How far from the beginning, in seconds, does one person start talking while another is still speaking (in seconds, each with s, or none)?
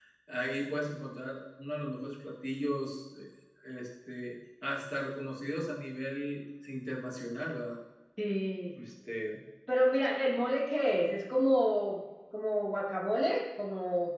none